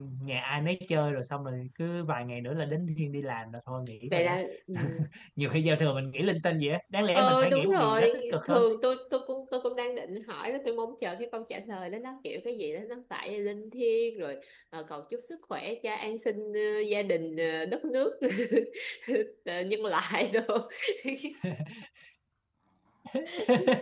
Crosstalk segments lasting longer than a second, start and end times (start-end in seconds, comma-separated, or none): 7.1-8.6